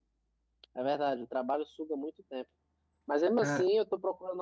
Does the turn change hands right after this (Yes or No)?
No